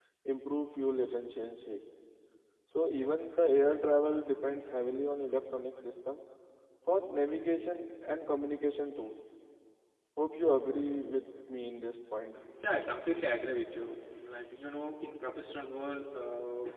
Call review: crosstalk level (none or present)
none